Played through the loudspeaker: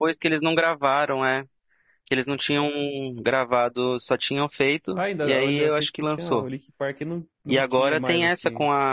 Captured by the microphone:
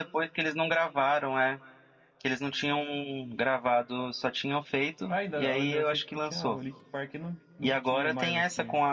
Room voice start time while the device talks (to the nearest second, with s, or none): none